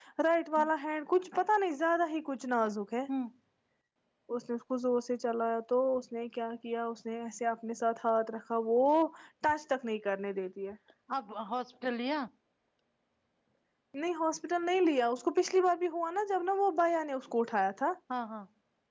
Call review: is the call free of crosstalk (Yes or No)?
Yes